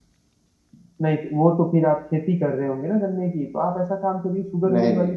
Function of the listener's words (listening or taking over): listening